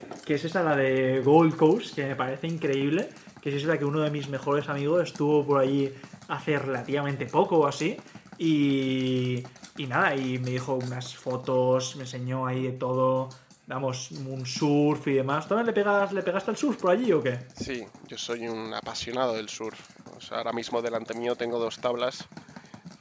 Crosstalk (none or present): none